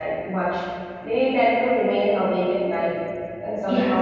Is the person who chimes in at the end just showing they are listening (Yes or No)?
No